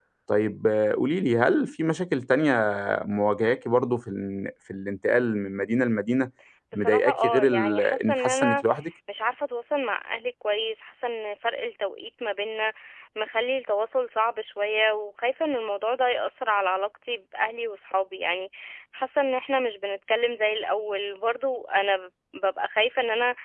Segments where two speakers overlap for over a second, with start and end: 6.7-8.6

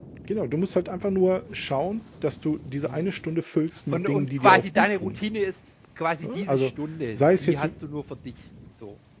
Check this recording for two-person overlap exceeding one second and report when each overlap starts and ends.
3.9-5.2

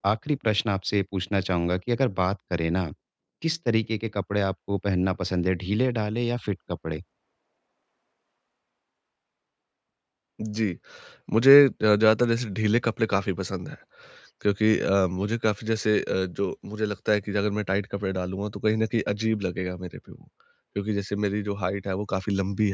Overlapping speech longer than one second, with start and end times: none

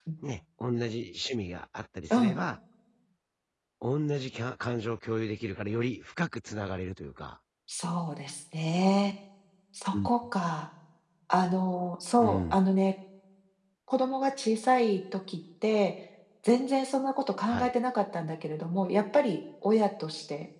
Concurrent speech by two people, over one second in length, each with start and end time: none

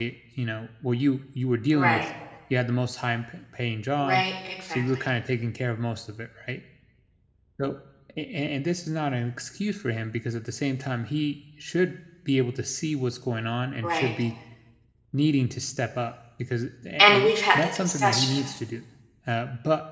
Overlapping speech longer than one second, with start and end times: 17.0-18.5

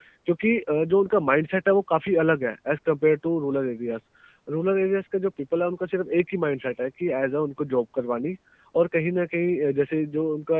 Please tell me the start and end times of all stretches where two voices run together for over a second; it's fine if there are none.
none

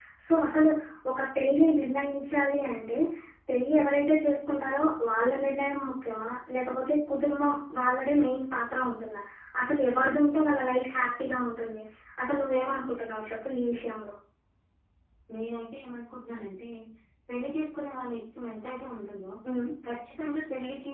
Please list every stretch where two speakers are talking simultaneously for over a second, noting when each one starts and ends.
none

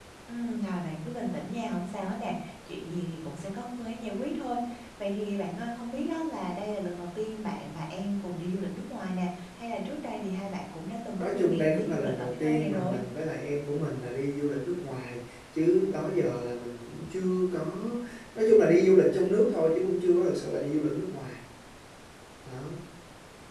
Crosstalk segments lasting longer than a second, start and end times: 11.2-13.0

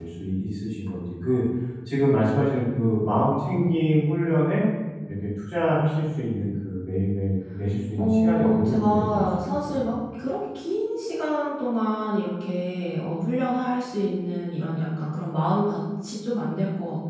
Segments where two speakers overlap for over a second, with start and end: 8.0-9.8

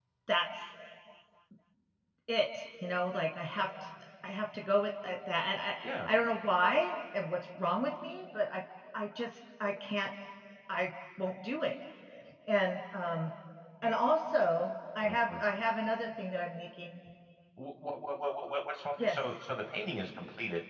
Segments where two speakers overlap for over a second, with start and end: none

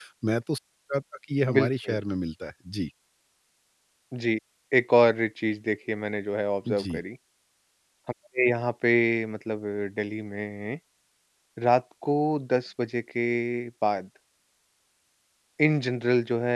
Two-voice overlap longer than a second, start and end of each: none

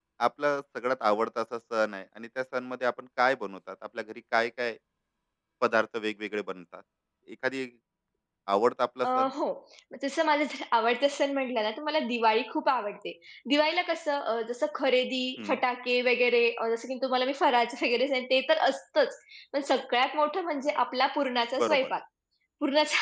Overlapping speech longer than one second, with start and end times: none

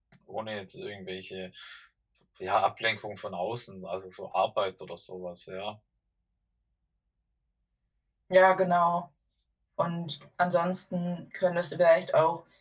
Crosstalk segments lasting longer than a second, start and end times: none

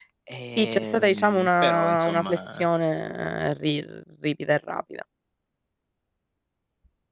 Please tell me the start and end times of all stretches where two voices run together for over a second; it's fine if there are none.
0.6-2.6

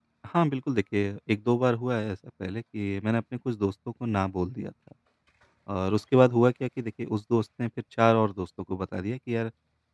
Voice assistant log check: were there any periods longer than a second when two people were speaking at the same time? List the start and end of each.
none

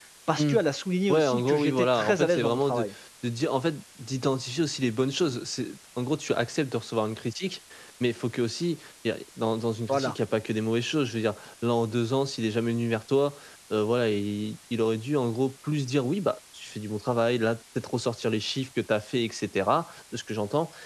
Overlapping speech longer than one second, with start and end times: 1.1-2.9

